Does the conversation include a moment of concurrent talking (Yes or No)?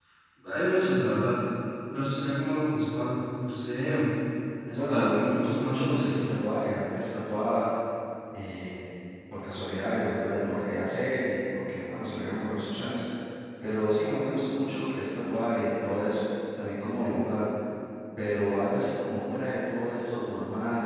Yes